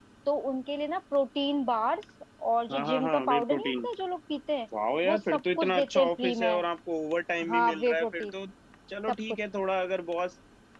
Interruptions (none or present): present